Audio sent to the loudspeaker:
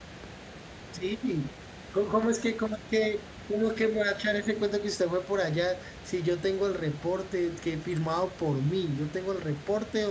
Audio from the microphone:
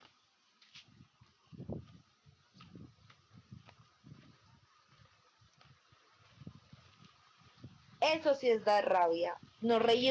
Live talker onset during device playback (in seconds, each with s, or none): 8.0 s